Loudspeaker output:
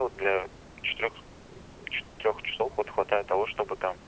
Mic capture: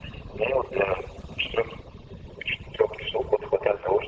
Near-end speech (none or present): none